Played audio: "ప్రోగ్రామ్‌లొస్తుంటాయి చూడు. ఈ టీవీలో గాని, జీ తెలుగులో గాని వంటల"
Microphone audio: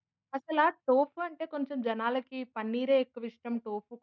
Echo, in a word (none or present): none